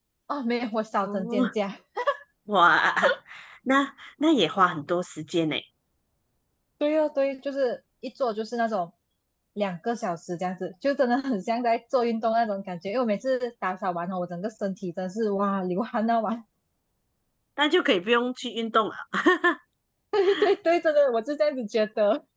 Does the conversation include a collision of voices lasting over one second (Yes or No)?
No